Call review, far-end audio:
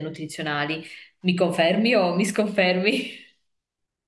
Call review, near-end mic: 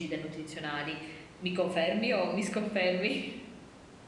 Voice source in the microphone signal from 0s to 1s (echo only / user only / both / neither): echo only